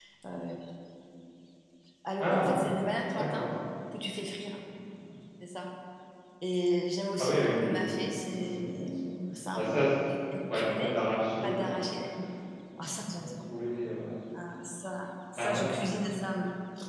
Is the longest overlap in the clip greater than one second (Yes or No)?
Yes